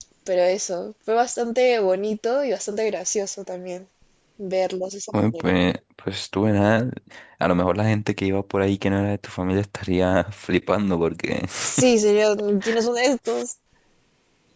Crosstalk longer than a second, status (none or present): none